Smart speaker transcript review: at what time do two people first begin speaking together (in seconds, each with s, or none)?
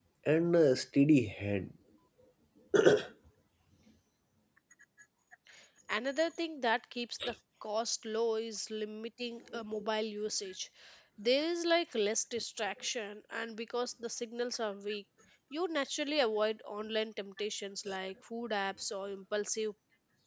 none